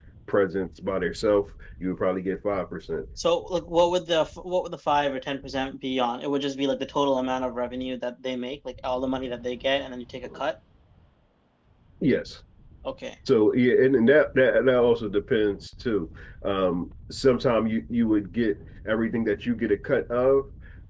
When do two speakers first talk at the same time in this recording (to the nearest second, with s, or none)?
none